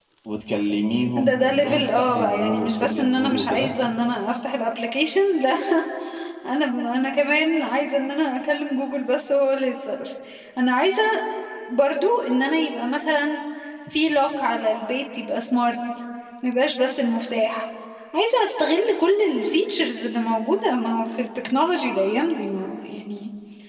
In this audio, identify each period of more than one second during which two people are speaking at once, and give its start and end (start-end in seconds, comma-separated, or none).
1.2-3.7